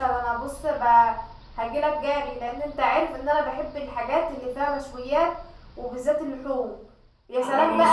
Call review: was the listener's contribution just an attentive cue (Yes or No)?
Yes